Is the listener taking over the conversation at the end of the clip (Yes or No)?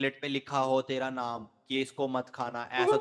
No